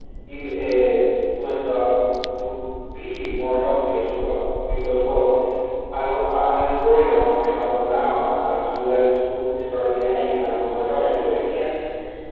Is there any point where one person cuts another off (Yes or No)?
Yes